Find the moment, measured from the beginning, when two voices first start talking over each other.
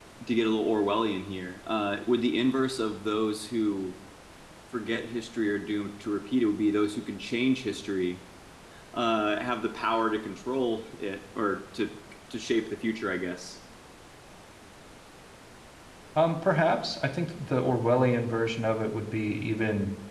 none

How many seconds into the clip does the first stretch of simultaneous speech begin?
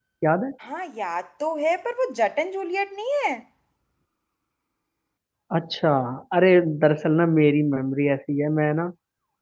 none

